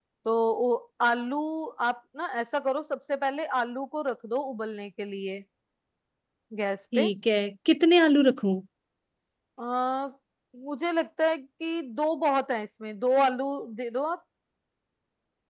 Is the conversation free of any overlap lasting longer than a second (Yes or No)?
Yes